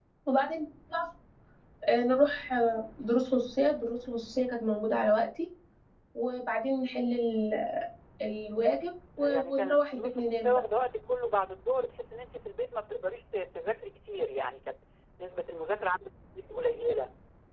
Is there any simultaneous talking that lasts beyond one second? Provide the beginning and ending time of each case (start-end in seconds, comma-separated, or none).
9.2-10.6